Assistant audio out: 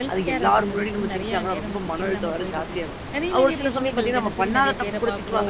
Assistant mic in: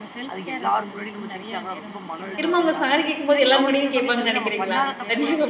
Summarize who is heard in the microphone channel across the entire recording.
both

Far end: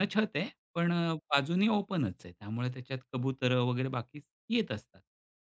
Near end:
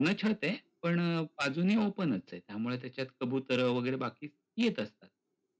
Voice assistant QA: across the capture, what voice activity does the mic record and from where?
echo only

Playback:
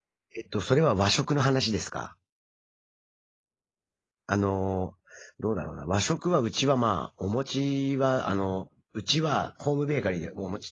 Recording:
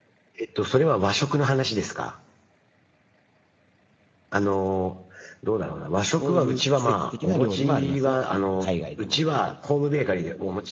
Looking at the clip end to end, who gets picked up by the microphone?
both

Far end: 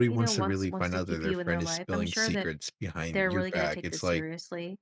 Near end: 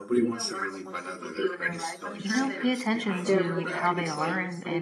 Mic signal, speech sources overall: both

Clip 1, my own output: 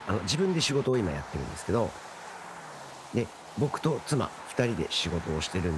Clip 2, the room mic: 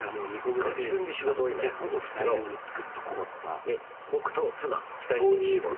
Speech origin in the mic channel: both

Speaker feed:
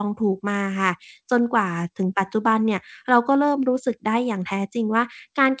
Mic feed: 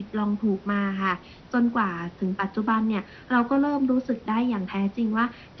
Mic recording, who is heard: echo only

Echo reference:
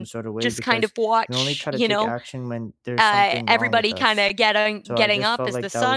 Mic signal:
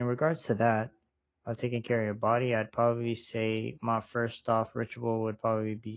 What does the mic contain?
user only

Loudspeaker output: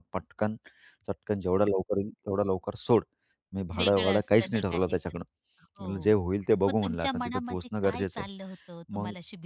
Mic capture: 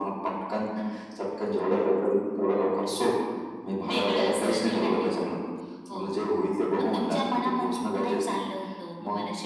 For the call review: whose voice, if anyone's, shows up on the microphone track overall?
echo only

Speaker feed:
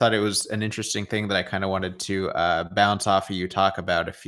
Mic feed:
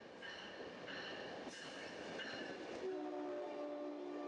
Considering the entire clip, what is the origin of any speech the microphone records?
neither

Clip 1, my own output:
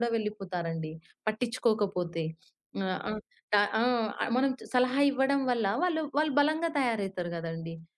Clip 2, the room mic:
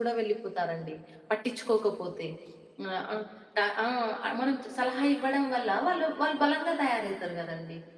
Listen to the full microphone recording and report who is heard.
echo only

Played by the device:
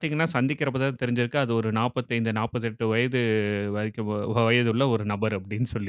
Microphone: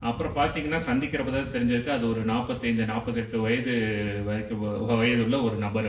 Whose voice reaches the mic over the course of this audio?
echo only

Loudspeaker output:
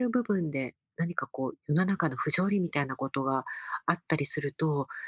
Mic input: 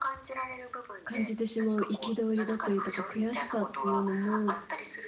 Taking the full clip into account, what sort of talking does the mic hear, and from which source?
both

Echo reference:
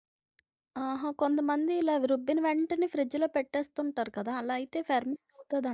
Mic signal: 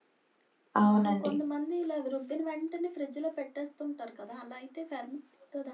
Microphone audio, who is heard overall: both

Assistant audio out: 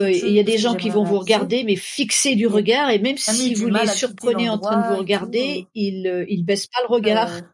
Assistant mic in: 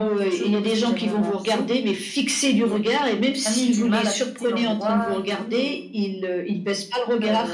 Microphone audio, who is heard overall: echo only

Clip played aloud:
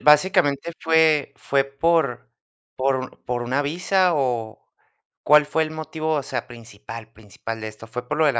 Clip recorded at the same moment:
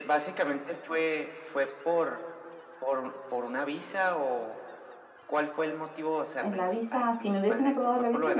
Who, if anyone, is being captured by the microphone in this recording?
both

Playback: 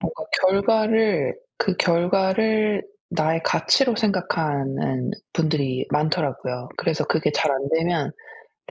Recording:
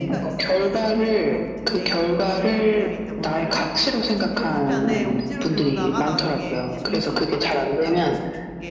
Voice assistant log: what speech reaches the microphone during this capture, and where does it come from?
both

